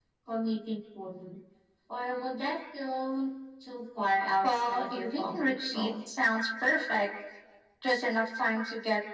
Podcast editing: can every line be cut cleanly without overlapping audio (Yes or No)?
No